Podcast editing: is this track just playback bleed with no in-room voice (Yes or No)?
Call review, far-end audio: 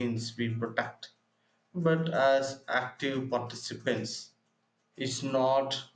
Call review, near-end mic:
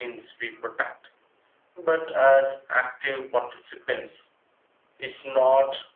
Yes